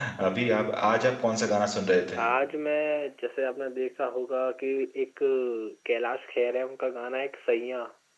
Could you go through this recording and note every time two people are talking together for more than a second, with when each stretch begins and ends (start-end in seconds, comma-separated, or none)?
none